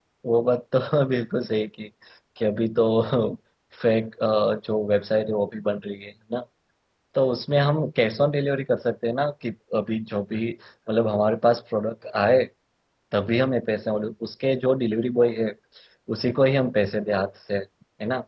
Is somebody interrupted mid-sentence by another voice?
No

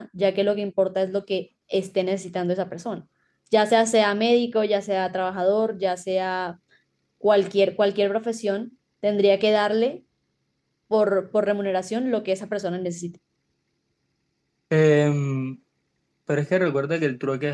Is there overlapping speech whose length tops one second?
No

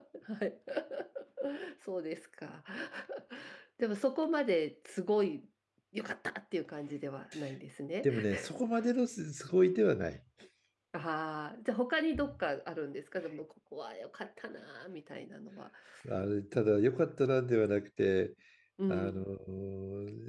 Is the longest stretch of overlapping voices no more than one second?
Yes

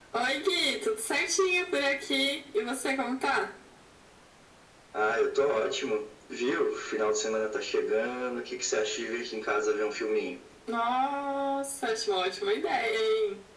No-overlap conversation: Yes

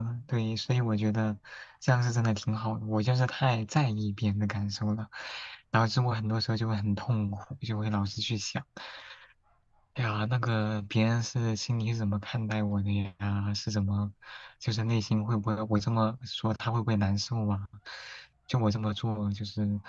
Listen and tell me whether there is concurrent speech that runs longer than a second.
No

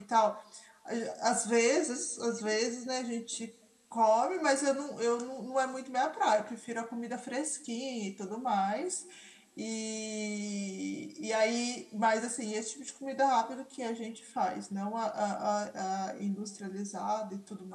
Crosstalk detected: No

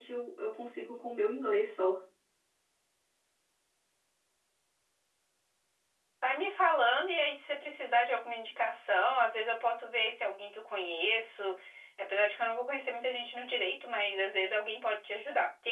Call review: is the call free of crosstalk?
Yes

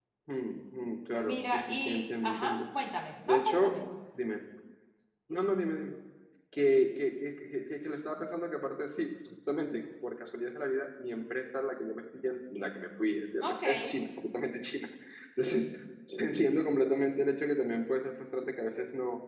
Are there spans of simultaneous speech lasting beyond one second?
Yes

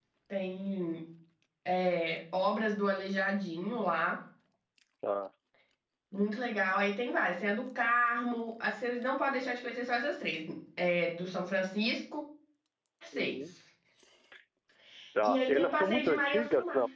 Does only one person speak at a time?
No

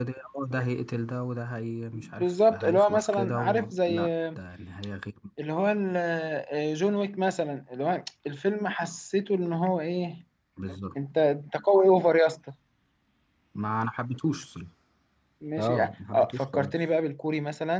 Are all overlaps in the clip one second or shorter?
No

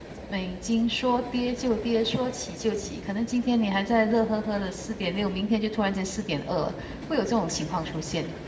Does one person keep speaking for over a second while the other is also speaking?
No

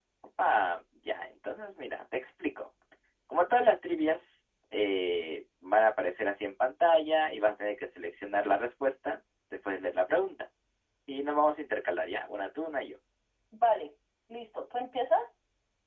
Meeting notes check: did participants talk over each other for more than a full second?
No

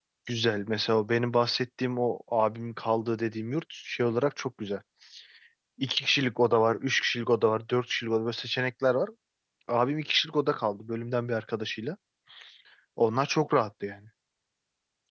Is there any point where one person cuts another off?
No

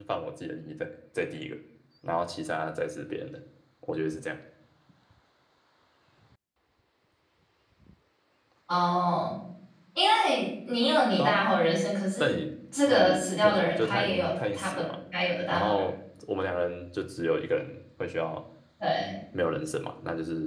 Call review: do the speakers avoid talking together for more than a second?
No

